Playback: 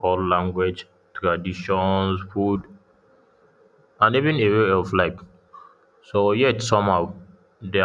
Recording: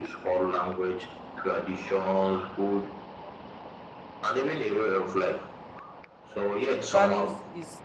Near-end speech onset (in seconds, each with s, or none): 6.9 s